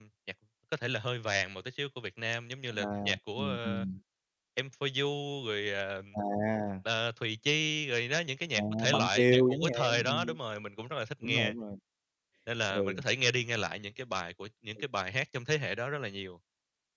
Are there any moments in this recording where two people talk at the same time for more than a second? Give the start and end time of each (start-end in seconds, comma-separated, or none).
8.6-10.3